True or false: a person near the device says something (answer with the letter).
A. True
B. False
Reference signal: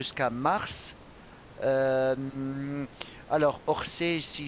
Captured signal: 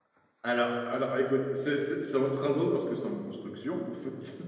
A